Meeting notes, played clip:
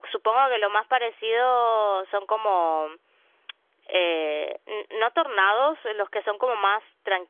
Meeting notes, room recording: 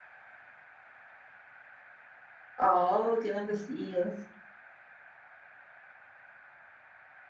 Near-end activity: present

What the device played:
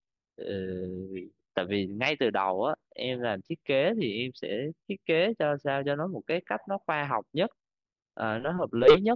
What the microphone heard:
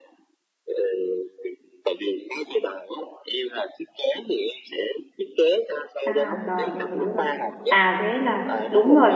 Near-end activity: present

